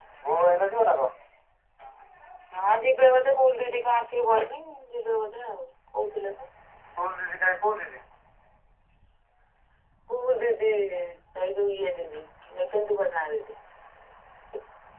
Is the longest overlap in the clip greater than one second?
No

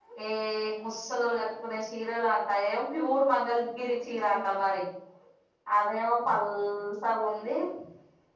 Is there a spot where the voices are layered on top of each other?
No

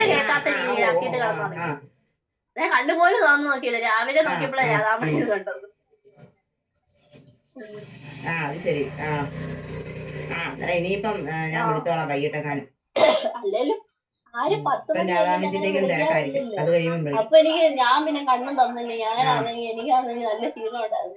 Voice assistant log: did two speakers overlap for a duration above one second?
Yes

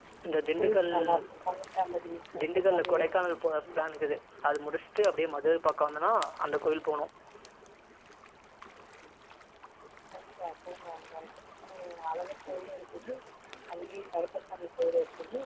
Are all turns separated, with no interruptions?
No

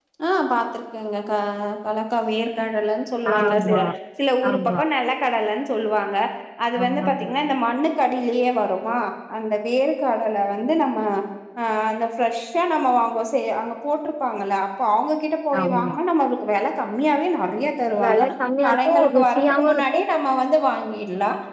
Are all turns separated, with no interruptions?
No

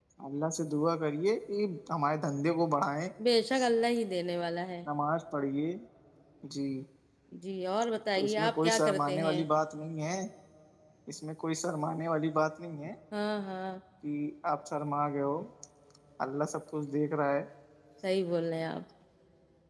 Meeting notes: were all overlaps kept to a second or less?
No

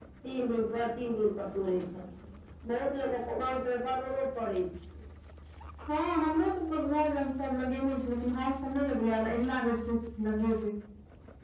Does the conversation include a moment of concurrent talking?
No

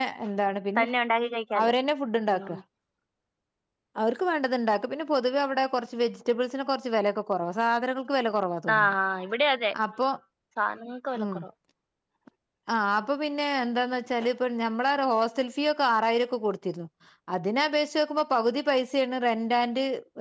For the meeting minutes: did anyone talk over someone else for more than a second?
No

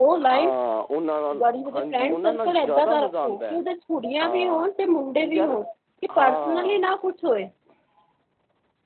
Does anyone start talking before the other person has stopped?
Yes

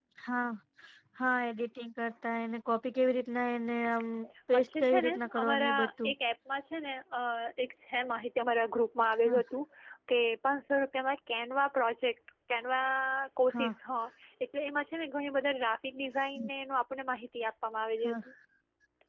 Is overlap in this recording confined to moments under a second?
No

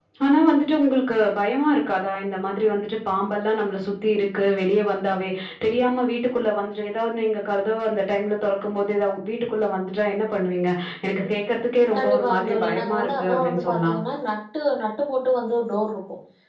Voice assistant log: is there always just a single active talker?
No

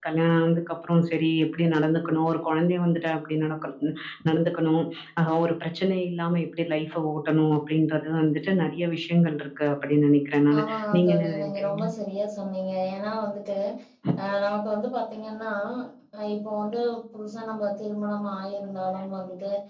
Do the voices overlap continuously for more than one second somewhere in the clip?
Yes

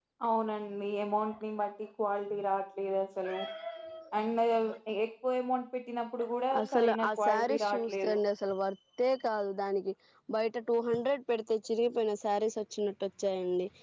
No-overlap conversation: No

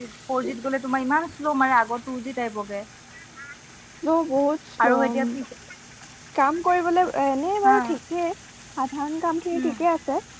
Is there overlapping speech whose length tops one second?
No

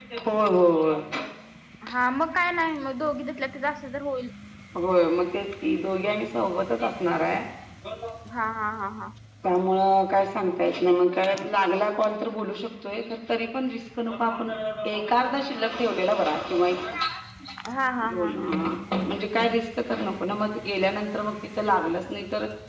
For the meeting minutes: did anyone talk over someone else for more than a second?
No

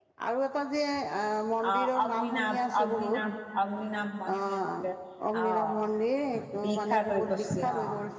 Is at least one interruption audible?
Yes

